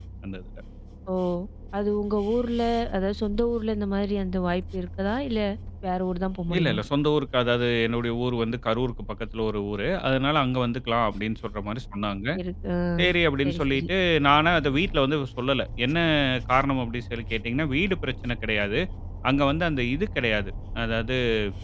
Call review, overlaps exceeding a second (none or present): none